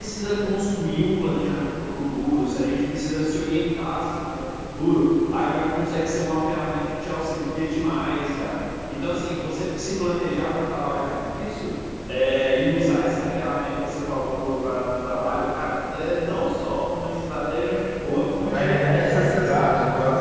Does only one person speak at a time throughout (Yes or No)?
No